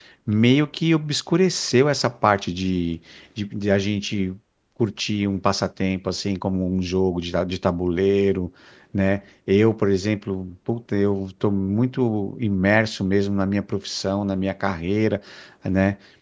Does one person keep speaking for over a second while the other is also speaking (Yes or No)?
No